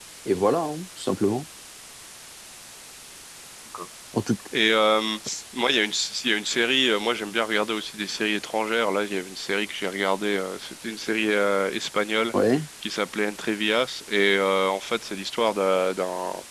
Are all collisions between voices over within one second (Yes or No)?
Yes